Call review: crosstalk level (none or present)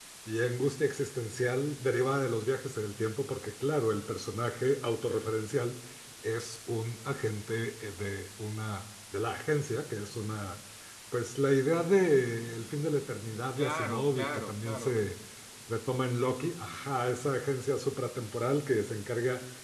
present